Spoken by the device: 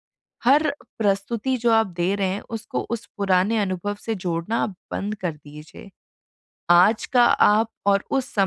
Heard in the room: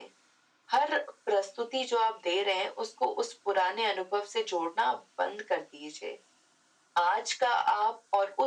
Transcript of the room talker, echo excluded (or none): none